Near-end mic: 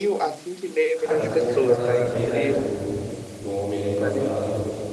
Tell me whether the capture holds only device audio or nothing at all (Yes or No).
No